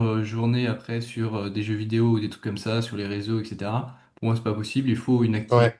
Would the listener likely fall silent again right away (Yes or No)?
Yes